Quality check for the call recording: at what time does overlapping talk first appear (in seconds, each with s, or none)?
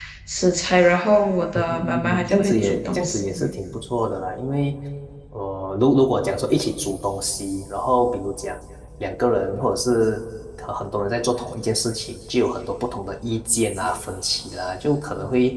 1.6 s